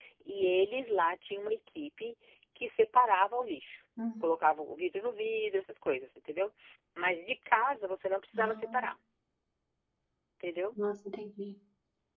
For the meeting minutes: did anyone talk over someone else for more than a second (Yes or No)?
No